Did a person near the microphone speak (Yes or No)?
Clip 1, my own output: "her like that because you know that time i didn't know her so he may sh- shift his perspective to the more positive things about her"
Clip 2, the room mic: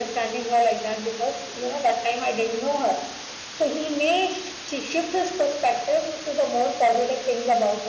No